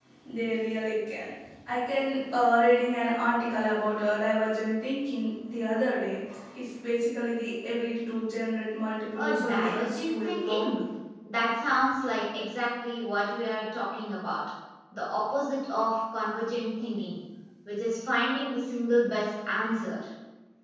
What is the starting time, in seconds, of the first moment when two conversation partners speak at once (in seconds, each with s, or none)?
9.2 s